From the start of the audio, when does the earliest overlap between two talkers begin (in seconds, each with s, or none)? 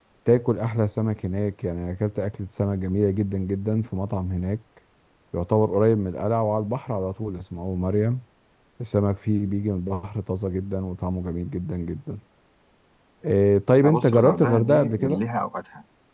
13.8 s